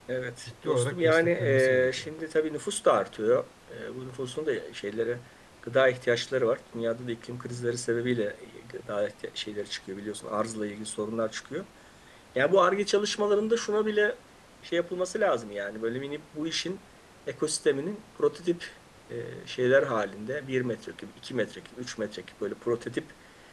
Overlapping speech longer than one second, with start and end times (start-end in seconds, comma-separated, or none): 0.6-2.1